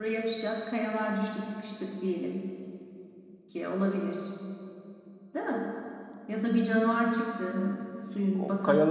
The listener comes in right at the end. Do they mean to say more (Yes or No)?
Yes